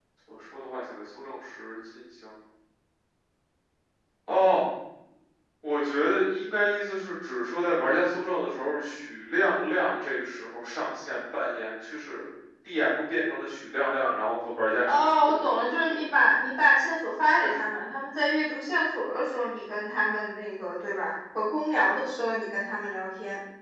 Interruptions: present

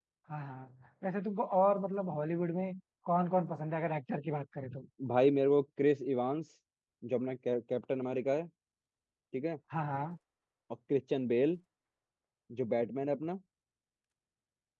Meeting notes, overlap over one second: none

